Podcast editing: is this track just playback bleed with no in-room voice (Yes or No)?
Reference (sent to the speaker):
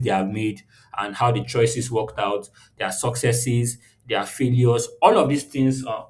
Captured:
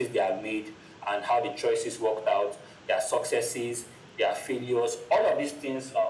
Yes